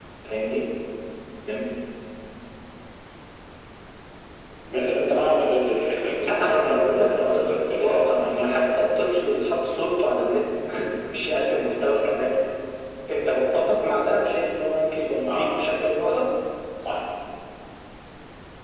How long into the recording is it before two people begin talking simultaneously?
6.2 s

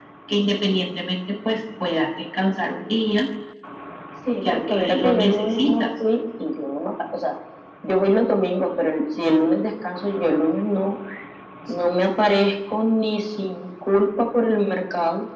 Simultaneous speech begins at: 4.4 s

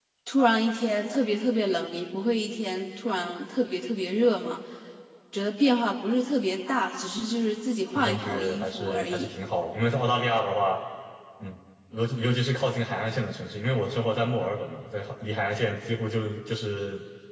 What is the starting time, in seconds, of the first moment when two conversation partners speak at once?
7.9 s

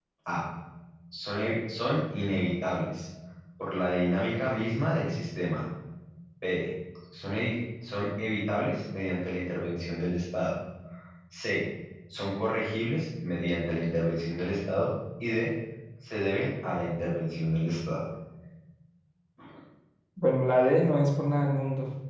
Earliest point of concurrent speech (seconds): none

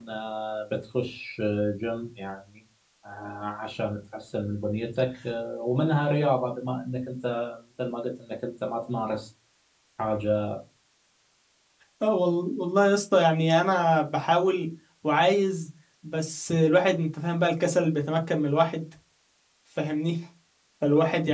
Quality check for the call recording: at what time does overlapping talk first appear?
none

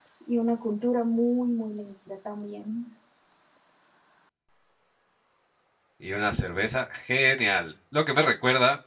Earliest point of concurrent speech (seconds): none

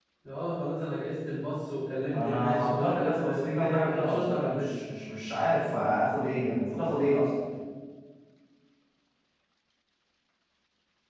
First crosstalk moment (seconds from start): 2.1 s

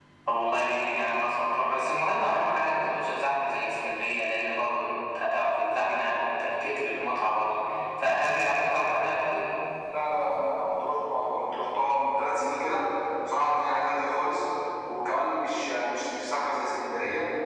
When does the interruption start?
none

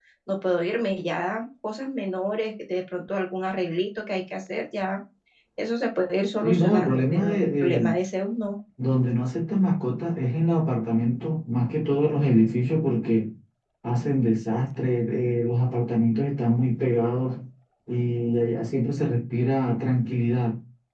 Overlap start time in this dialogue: 6.4 s

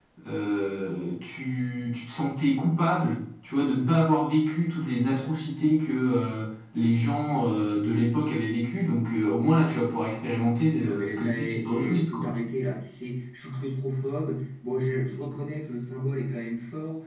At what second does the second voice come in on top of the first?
10.7 s

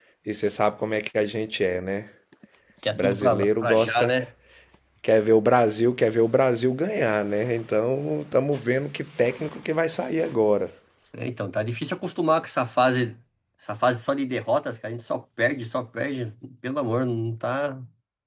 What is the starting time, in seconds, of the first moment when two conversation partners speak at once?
2.9 s

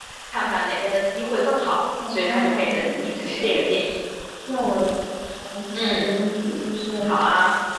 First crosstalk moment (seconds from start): 2.1 s

